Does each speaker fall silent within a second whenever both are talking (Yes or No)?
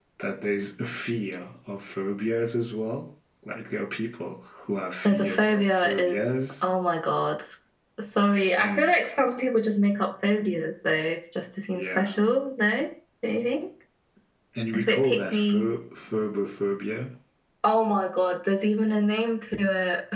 No